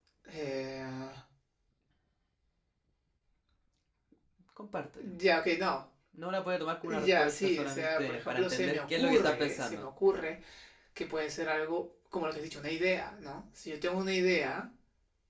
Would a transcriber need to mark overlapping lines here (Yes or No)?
Yes